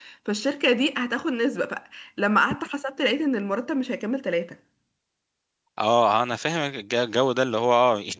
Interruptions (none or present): none